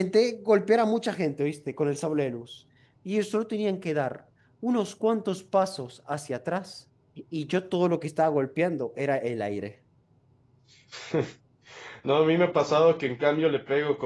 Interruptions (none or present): none